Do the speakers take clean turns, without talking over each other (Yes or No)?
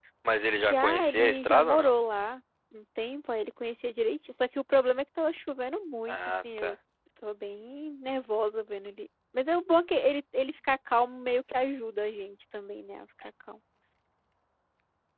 No